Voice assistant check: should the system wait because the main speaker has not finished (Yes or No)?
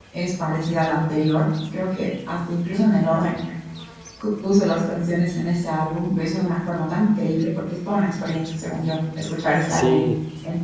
No